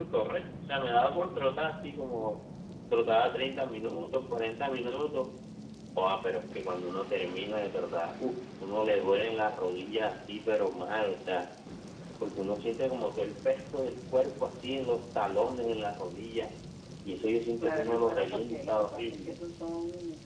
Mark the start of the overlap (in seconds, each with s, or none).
17.6 s